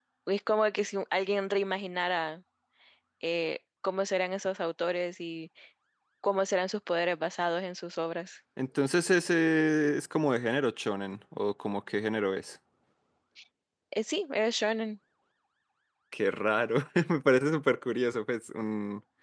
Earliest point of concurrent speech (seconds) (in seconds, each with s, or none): none